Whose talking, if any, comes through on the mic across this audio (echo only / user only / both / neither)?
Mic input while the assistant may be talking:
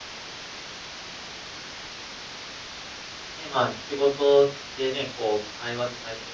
user only